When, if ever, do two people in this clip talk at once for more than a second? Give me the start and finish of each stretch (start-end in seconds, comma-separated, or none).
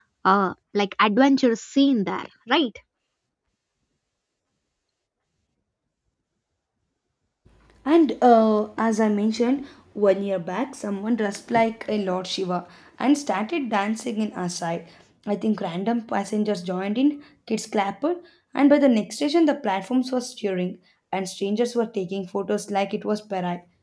none